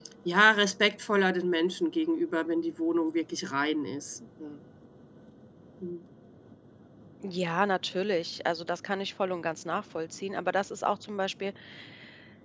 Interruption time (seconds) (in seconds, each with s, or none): none